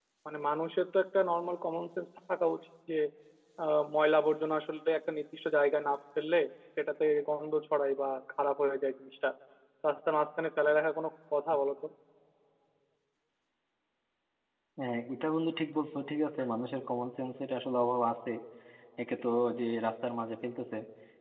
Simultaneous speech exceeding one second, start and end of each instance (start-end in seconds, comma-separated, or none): none